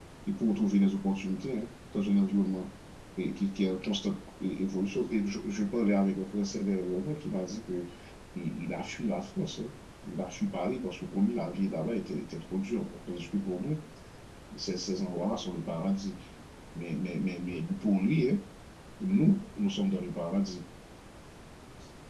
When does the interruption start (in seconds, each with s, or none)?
none